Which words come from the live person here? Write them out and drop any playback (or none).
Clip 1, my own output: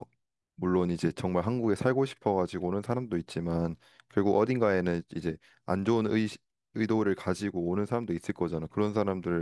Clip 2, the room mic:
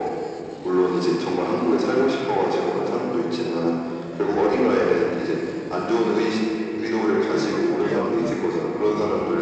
그래서 그게 어떤